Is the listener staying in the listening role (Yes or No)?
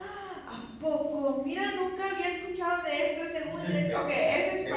No